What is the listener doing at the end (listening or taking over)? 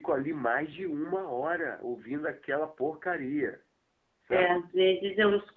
taking over